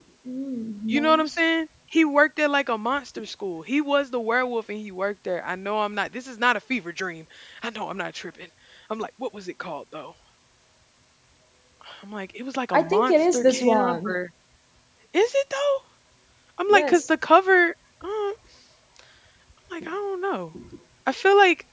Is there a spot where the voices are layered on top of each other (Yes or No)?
Yes